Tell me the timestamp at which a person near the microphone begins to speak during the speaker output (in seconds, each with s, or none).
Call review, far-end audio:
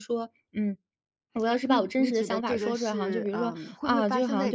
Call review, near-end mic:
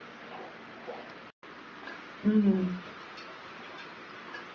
2.2 s